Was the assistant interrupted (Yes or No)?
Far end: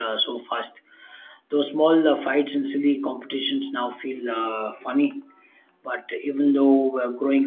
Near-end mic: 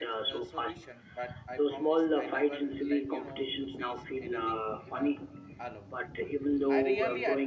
Yes